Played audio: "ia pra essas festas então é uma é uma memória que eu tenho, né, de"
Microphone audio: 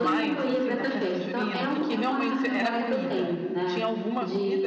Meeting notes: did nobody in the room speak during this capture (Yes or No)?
No